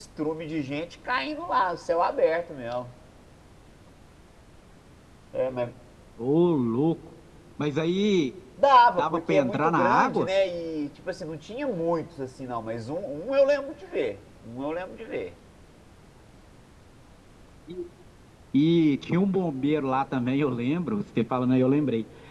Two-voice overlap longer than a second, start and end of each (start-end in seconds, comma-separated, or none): 9.0-10.3